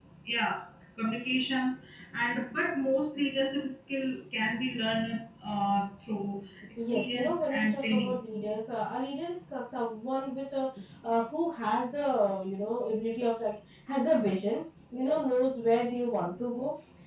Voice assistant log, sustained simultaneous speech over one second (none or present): present